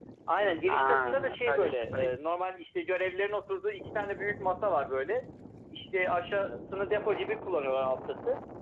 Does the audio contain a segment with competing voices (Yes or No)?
Yes